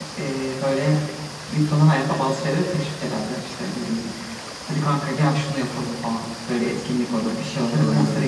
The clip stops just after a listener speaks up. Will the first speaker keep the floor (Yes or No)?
Yes